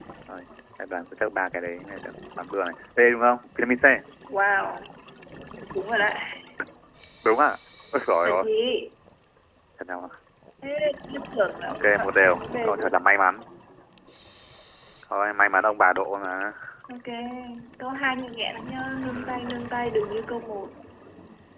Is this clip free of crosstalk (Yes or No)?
No